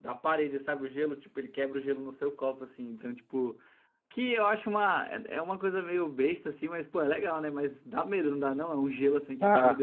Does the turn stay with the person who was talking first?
No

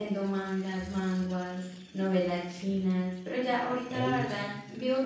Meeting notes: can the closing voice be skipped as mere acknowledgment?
Yes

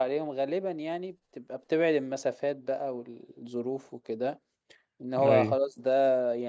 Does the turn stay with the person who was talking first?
Yes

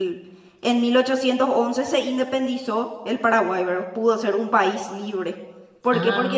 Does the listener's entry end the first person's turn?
No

